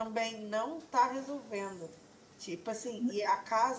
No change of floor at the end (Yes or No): Yes